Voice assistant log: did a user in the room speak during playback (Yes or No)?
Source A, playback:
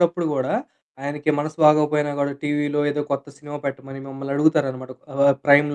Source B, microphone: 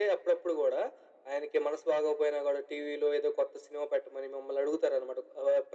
No